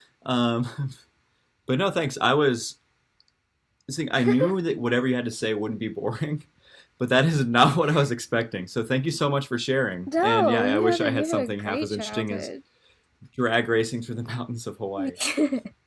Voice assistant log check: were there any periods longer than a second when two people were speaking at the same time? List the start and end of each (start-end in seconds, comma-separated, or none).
10.1-12.5